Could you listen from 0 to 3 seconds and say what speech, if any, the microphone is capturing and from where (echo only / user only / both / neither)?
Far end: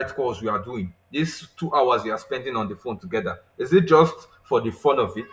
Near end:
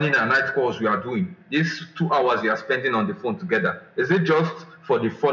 echo only